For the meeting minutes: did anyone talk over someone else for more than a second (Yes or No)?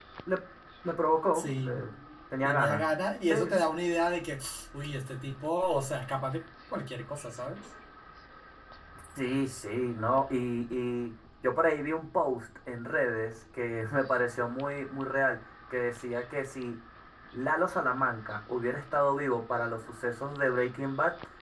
No